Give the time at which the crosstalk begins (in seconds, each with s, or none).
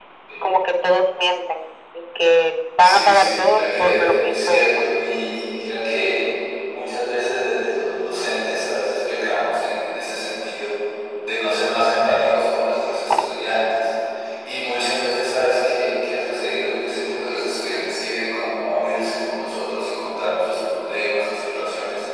2.8 s